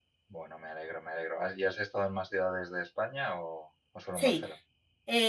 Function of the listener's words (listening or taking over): taking over